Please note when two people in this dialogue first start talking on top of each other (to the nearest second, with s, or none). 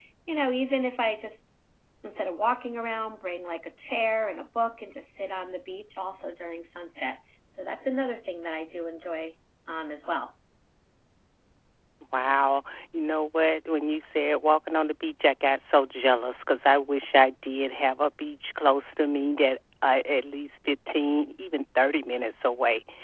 none